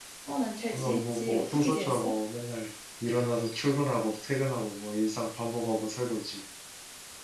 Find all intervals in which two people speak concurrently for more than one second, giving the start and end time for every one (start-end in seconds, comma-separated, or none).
0.7-2.1